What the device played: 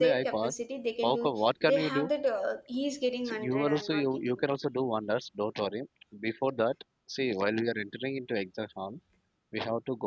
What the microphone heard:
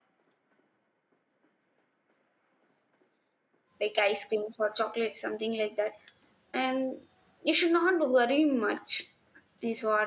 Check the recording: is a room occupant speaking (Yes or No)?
Yes